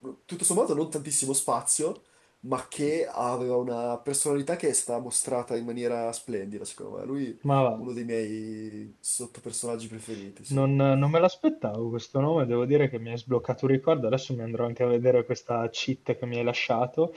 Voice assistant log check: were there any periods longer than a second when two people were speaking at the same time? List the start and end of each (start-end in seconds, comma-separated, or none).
none